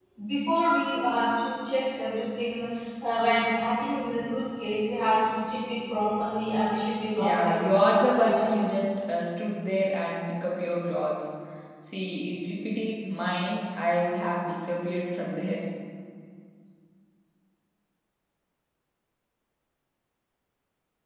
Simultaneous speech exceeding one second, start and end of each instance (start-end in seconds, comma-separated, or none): 7.2-8.5